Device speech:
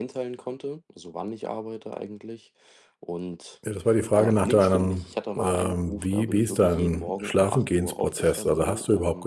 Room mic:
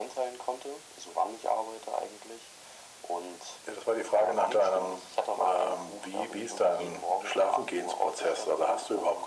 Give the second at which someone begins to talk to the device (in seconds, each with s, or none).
none